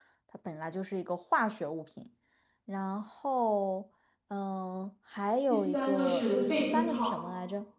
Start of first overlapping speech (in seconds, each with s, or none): 5.5 s